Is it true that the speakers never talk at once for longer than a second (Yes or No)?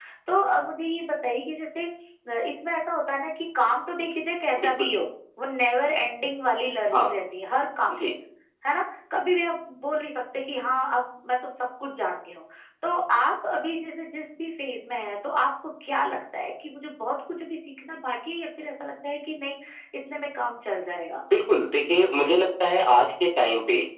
Yes